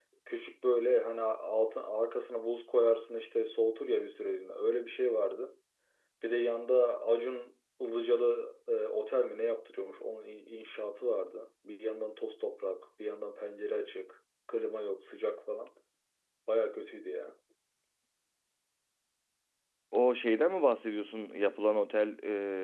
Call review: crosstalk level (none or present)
none